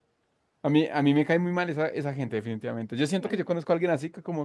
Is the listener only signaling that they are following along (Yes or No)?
Yes